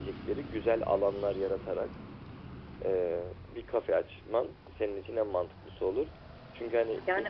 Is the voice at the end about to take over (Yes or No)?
No